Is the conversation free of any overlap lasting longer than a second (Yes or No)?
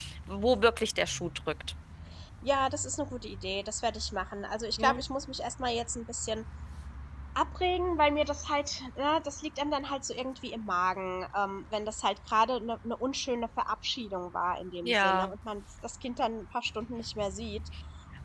Yes